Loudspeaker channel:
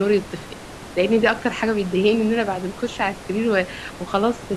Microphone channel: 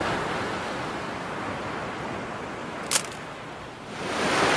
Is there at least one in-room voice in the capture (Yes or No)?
No